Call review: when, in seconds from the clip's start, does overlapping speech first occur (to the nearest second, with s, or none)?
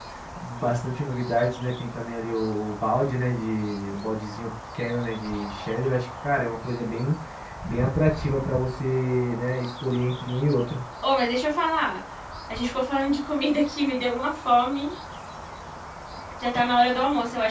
none